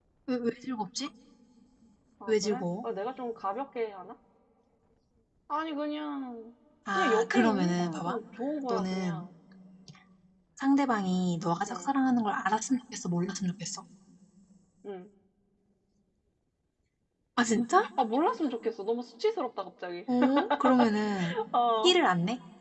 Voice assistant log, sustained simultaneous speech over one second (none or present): present